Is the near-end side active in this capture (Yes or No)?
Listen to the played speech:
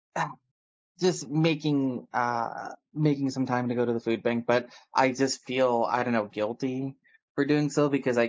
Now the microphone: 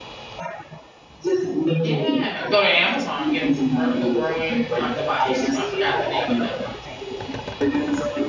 Yes